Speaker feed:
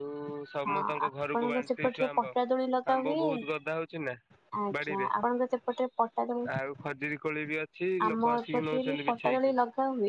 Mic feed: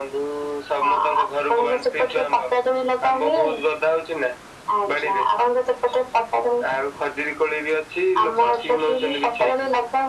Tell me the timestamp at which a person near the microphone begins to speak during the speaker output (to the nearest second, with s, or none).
none